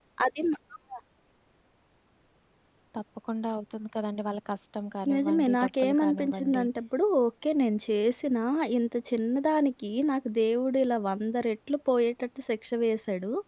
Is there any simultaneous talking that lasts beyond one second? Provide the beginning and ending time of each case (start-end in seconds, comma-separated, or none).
5.1-6.6